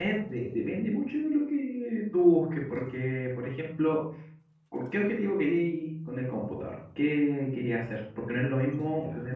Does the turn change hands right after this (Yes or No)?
No